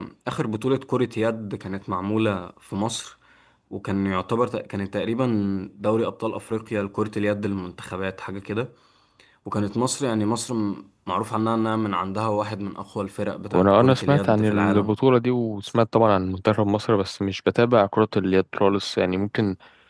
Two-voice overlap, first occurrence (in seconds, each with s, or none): 13.5 s